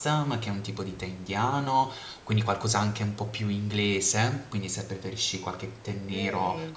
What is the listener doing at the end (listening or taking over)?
listening